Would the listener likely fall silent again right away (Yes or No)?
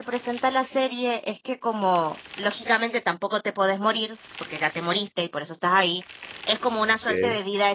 Yes